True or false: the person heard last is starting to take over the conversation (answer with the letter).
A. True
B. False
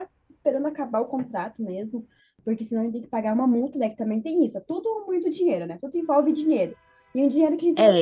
A